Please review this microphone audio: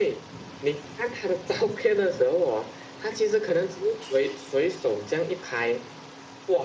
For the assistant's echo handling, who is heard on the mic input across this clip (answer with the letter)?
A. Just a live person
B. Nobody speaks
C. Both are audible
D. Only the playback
D